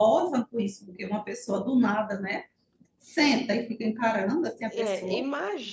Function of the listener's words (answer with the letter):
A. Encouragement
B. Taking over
B